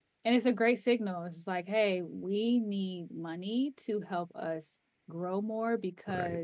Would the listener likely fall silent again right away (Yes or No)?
Yes